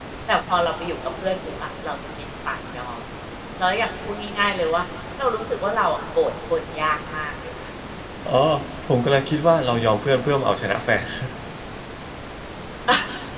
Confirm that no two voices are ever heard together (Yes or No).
Yes